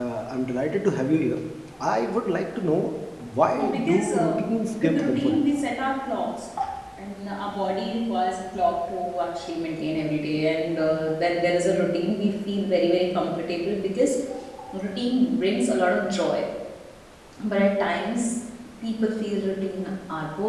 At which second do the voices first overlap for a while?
3.5 s

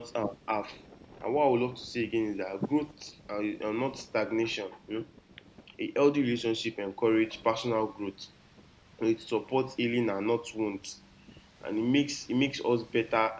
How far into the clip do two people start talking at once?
none

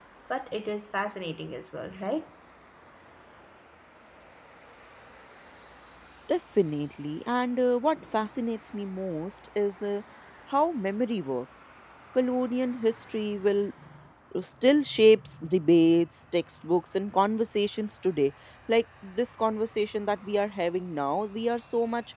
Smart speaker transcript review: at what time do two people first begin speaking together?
none

